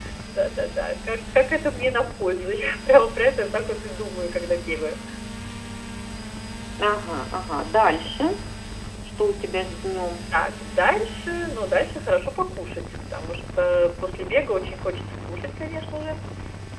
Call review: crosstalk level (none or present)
none